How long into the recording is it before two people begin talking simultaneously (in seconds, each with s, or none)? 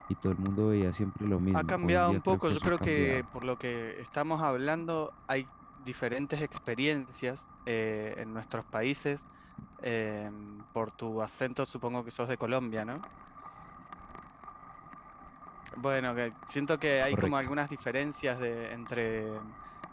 1.5 s